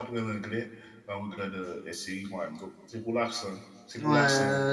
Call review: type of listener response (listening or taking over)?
taking over